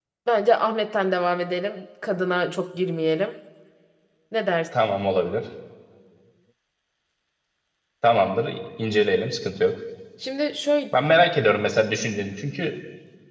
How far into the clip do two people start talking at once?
none

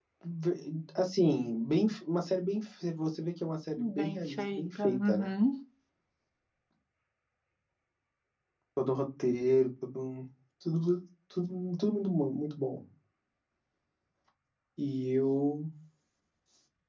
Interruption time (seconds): 3.8 s

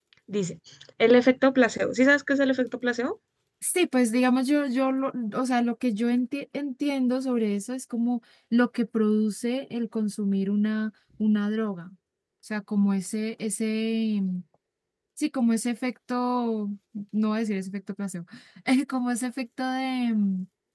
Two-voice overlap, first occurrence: none

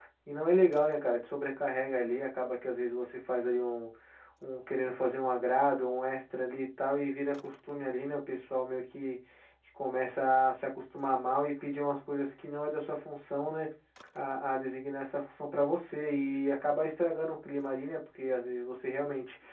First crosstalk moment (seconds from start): none

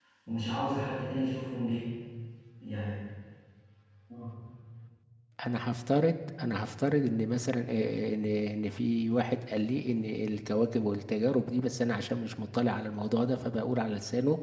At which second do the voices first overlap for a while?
none

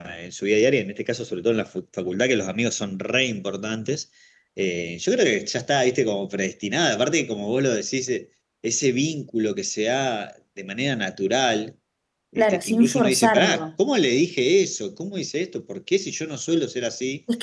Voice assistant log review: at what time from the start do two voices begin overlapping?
12.4 s

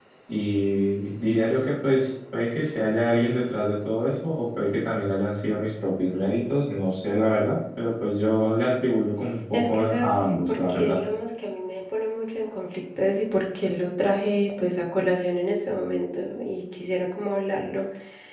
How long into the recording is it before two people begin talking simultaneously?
9.5 s

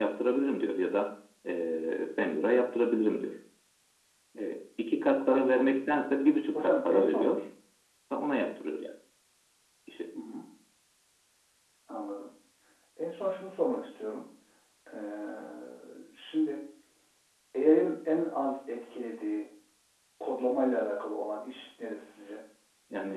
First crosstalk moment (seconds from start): 6.0 s

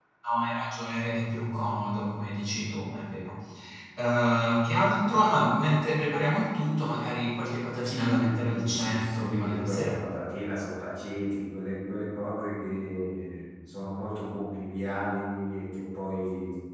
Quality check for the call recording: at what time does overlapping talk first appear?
7.8 s

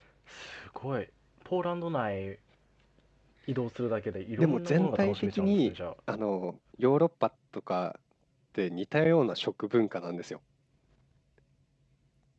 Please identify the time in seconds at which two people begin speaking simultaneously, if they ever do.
4.4 s

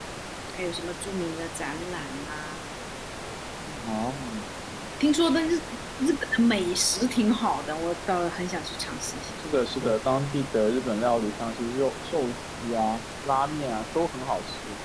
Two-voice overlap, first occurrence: none

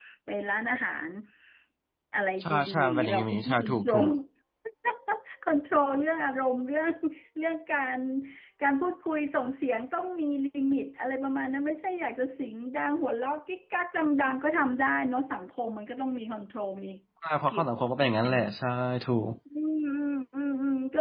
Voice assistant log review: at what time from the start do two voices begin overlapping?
2.4 s

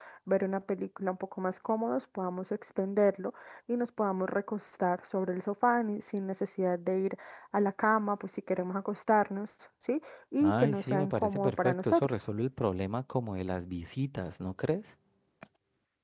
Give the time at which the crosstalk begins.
10.4 s

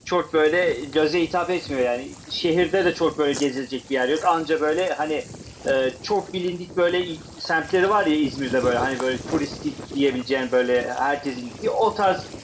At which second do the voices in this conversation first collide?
none

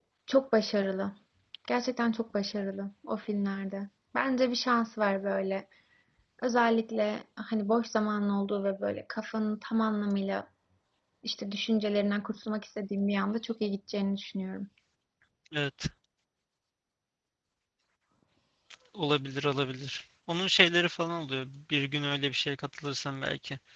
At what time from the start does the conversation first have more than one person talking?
none

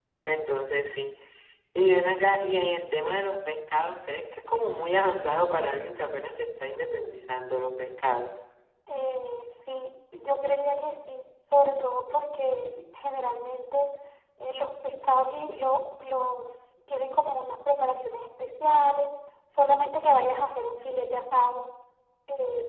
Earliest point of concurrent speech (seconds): none

